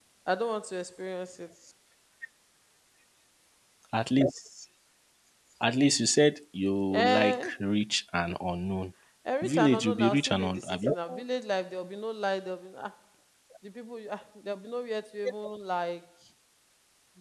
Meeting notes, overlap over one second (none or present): present